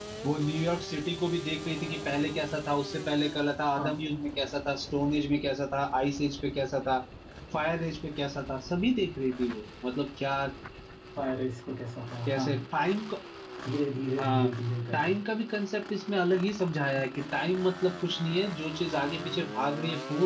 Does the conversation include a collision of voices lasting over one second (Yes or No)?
No